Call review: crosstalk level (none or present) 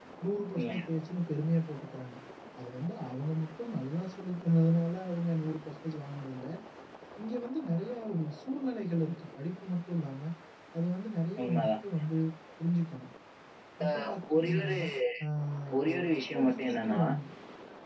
present